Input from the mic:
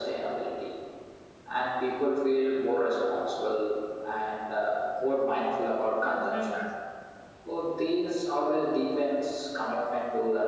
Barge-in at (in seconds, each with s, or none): 6.0 s